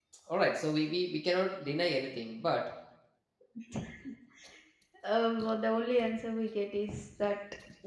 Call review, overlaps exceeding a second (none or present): none